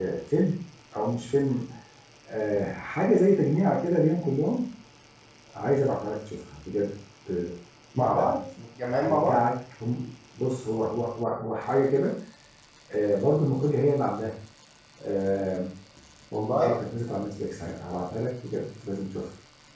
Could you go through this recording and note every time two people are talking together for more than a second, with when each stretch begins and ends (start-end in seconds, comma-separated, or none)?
none